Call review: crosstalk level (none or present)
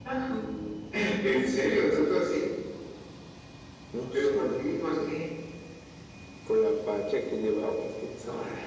present